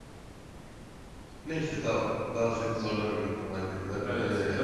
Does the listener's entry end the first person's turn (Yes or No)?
Yes